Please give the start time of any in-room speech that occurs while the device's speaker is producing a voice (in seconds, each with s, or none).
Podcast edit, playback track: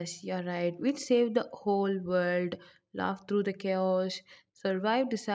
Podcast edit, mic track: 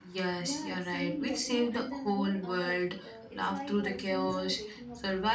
0.4 s